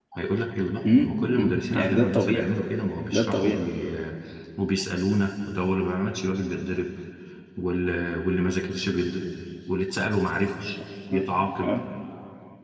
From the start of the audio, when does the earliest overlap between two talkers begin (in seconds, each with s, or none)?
0.8 s